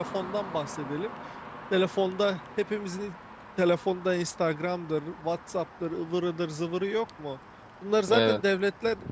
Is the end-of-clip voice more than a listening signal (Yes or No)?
No